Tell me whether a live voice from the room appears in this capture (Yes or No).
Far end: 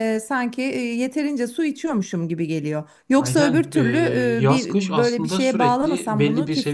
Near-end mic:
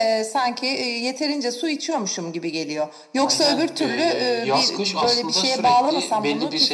No